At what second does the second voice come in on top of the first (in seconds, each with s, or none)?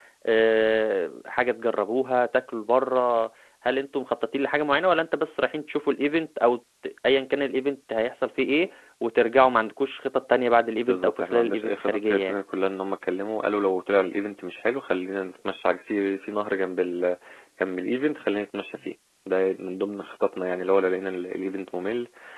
10.9 s